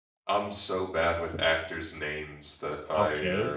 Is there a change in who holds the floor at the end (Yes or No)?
Yes